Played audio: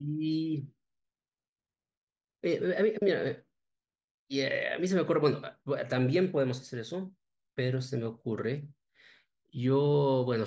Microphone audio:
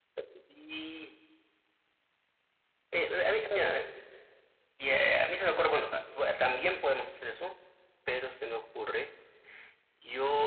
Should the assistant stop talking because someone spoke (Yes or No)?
No